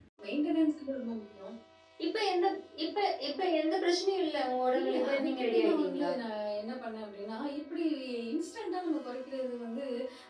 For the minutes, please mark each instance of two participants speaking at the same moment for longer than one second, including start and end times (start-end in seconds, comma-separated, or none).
4.8-6.1